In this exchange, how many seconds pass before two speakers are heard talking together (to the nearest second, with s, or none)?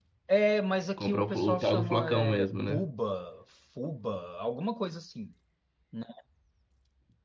1 s